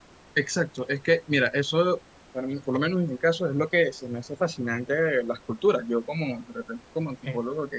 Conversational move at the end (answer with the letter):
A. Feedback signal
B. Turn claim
A